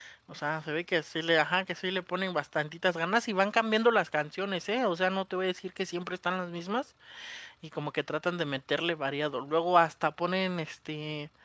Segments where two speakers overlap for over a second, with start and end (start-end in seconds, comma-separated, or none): none